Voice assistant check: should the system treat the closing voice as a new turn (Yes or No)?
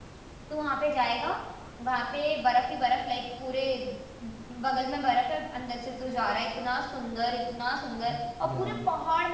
No